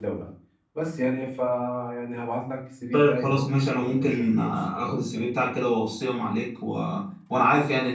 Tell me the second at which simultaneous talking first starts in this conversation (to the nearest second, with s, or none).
3 s